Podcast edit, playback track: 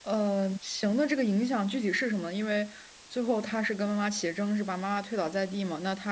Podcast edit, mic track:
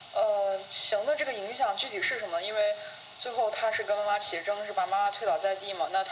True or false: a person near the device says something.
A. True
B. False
B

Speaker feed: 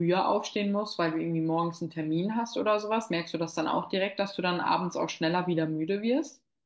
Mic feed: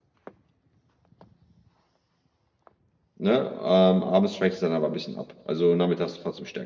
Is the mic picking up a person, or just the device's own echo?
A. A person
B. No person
A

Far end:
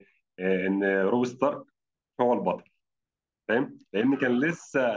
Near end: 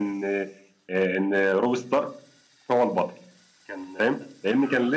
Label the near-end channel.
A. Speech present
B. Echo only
A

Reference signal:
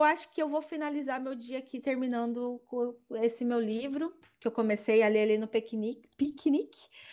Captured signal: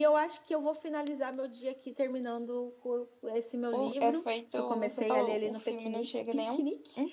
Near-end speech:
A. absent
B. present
B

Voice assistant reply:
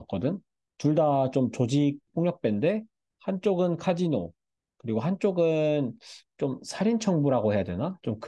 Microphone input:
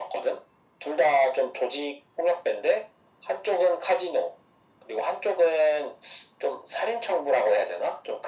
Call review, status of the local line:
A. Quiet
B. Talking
A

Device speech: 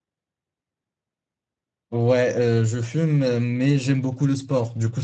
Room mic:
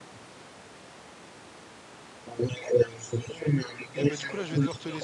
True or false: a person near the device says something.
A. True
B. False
A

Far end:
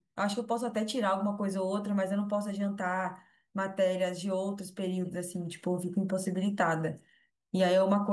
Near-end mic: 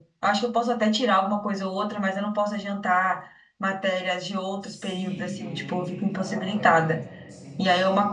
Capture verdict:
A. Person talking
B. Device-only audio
A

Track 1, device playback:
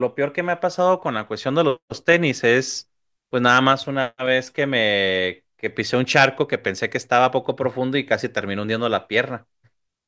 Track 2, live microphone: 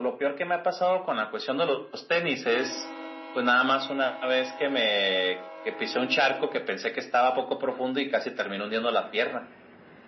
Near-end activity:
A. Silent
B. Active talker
A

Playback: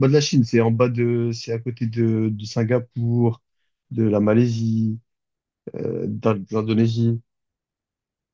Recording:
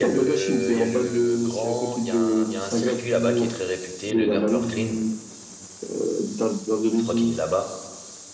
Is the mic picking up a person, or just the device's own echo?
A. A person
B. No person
A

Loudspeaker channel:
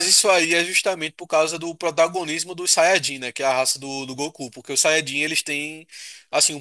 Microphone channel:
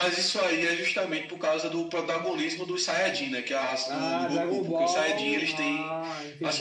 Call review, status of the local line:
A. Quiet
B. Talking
B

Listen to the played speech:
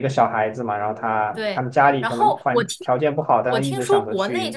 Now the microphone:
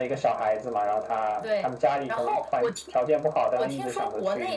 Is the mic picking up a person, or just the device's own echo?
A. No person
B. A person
A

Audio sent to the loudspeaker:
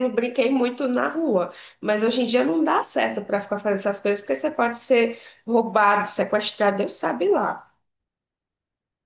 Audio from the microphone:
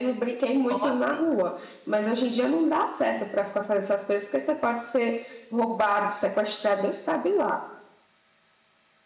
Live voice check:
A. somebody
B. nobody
A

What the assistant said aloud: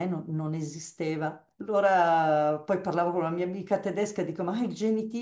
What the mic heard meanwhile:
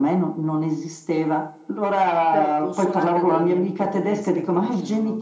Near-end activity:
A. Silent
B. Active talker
B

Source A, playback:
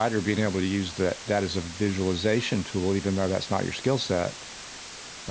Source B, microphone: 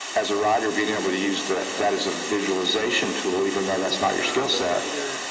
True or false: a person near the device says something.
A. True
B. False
A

